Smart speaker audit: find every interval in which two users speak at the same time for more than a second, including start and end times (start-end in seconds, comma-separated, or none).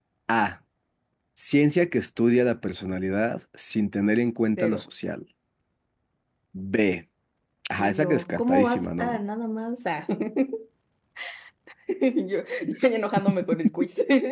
7.8-9.2